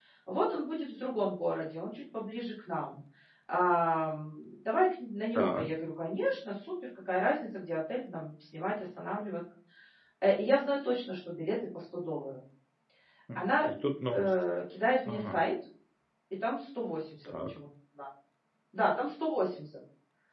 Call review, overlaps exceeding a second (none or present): none